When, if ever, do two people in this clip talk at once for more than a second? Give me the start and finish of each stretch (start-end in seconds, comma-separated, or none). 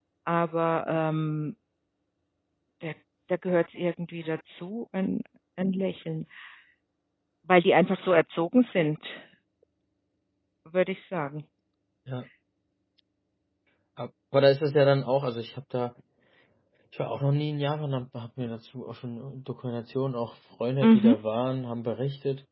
none